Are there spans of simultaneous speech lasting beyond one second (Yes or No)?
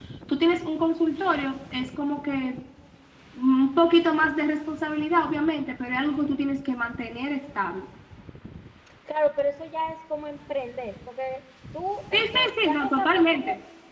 Yes